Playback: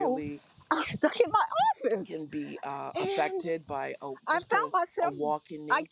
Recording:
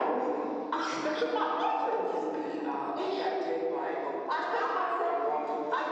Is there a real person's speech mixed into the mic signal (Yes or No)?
No